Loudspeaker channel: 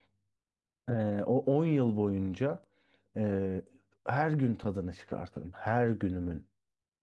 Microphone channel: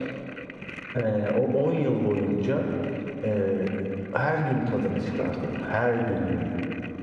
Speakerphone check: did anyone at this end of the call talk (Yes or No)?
No